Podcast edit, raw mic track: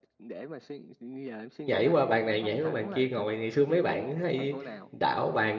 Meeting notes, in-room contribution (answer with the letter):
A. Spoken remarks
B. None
A